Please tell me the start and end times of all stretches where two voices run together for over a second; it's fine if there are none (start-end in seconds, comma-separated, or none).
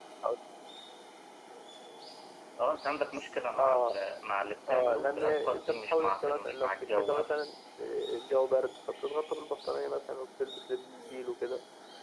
4.7-7.4